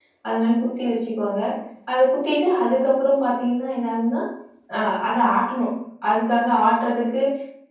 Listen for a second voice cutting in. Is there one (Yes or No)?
No